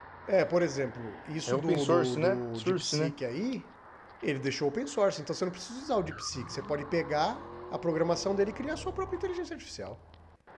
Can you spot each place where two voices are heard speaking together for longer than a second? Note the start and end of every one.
1.5-3.1

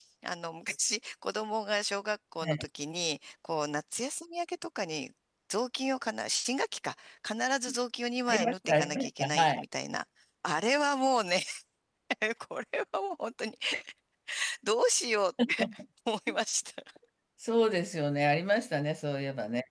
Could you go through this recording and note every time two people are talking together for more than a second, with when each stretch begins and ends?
8.3-9.6

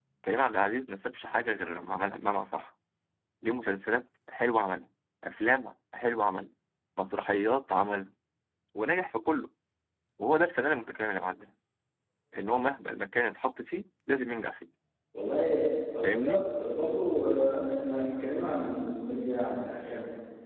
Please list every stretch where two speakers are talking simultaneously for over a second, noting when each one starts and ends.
none

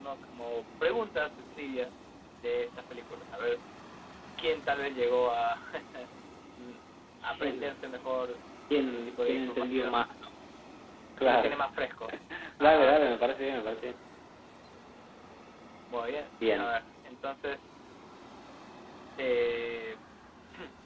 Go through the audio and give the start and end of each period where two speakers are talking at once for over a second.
8.8-9.9

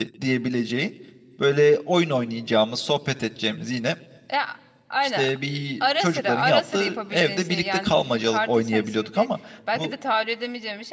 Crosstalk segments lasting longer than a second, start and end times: 6.0-9.3

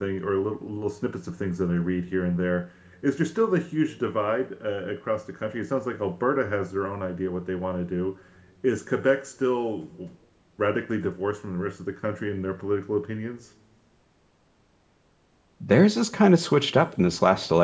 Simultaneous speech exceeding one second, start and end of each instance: none

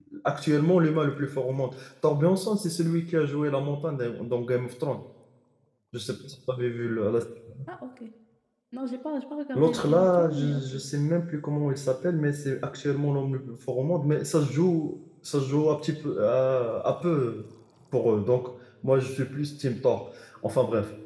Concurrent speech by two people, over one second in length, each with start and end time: 9.6-10.8

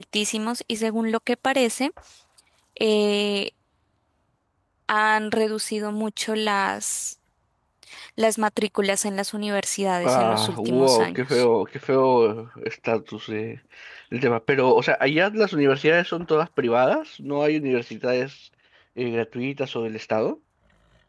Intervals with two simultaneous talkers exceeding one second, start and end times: 10.1-11.4

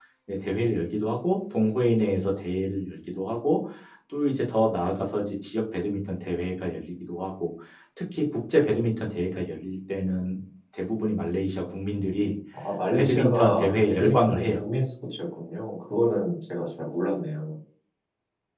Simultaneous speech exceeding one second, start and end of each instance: 12.9-14.5

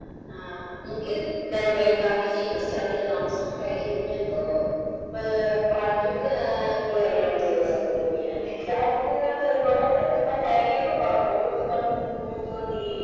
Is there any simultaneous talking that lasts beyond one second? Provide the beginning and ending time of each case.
6.9-8.3

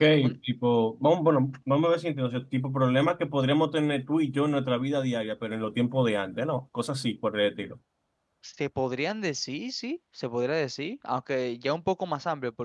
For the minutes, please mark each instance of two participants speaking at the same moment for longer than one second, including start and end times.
none

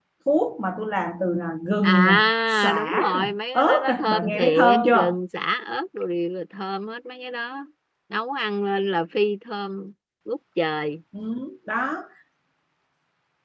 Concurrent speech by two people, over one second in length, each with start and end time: 1.8-5.2

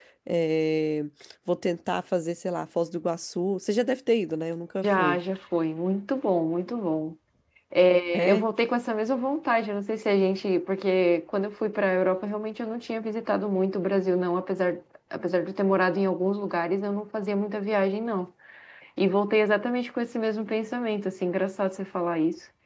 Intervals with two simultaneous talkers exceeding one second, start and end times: none

